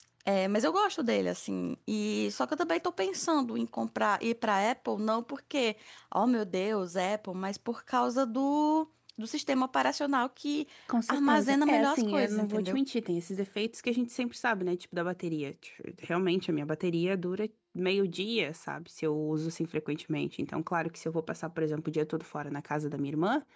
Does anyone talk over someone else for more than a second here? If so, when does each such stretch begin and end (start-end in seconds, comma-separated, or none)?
11.1-12.8